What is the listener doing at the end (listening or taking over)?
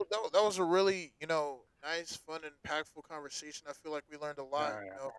listening